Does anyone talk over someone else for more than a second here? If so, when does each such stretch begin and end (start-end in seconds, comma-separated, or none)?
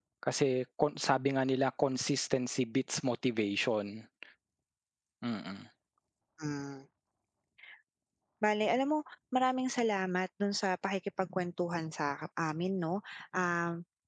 none